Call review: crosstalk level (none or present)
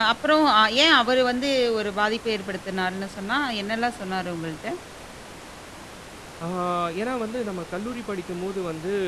none